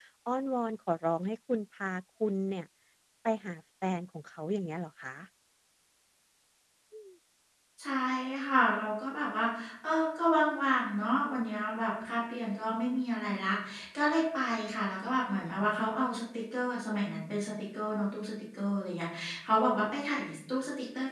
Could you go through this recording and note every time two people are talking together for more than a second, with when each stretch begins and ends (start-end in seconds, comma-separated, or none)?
none